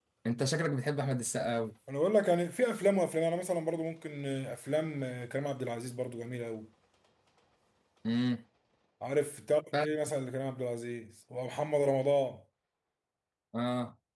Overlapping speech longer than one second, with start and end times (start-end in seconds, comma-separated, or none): none